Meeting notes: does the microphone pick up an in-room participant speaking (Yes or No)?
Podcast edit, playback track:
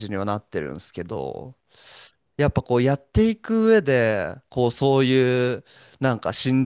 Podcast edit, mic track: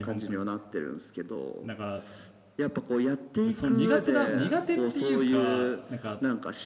Yes